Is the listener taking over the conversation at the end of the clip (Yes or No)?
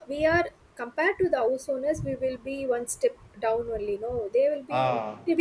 No